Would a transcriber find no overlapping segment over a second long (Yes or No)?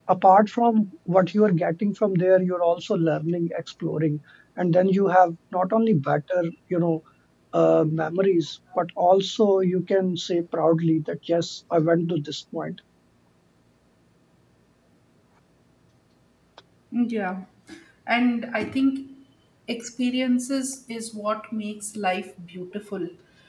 Yes